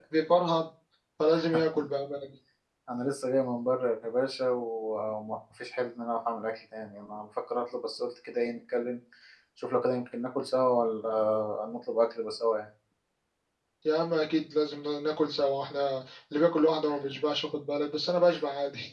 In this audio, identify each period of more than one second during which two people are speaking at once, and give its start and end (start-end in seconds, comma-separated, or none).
none